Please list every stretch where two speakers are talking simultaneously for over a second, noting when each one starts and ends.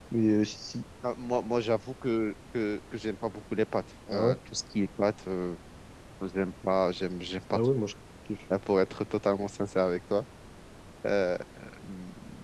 none

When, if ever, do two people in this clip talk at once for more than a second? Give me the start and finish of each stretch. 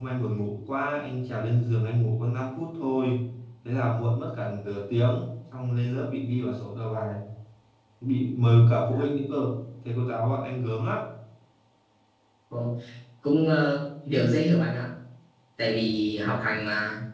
none

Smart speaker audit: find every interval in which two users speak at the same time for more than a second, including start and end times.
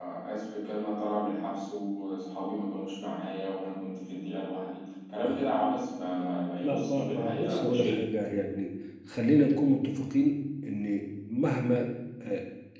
6.6-8.0

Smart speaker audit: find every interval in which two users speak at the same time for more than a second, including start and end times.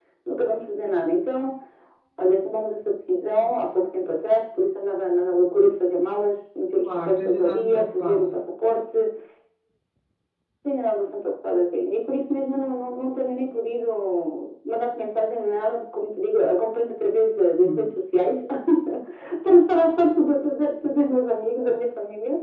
6.8-8.3

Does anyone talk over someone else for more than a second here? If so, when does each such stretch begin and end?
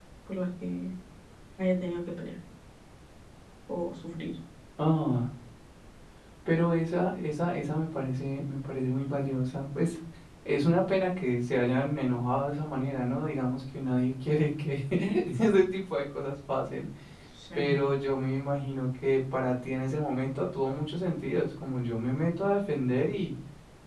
none

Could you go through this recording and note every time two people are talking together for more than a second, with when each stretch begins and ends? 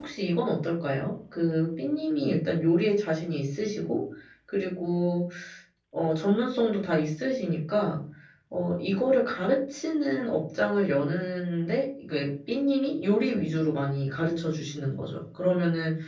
none

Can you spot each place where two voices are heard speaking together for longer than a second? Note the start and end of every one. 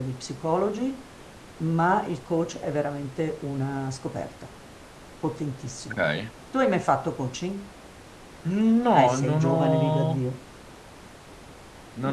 8.9-10.2

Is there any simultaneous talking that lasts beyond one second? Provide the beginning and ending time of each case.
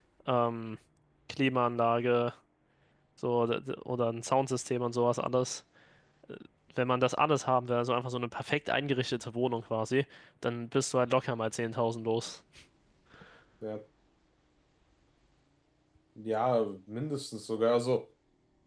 none

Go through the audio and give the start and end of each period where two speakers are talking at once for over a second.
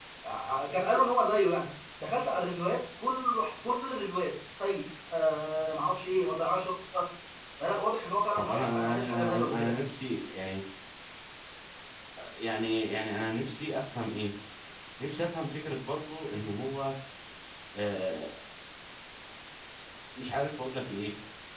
8.4-9.8

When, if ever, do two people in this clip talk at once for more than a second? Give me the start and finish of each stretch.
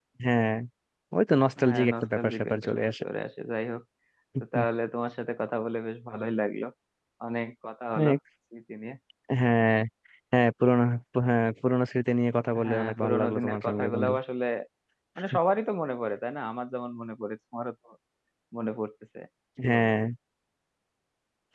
1.6-2.9, 12.6-14.1

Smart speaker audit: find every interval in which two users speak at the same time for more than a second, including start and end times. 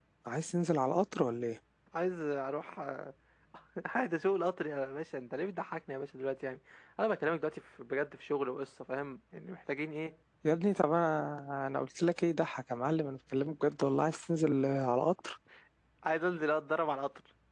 none

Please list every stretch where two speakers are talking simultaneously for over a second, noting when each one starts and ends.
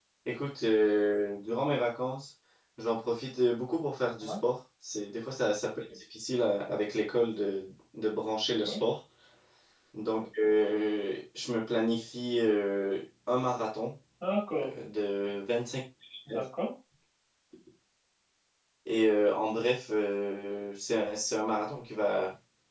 none

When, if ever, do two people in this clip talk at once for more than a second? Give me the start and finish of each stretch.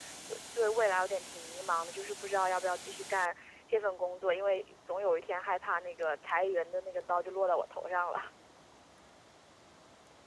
none

